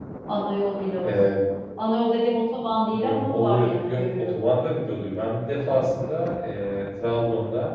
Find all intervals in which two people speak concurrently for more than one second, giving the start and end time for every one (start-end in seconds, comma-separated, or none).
2.9-4.4